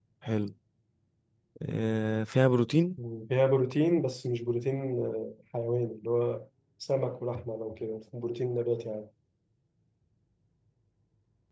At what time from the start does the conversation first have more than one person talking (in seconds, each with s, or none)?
none